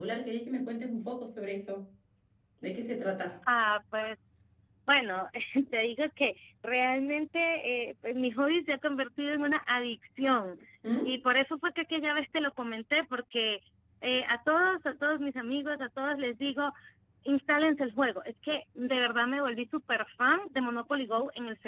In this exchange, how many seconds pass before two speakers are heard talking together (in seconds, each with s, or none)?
none